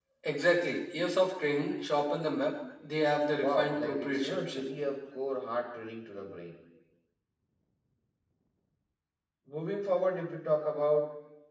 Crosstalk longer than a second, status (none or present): present